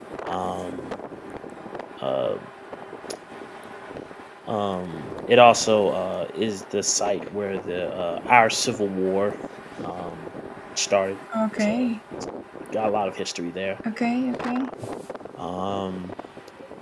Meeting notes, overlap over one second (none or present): none